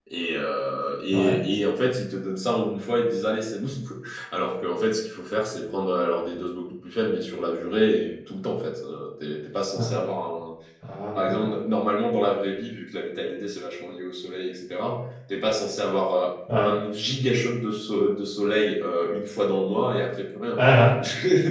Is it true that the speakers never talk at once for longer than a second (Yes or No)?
Yes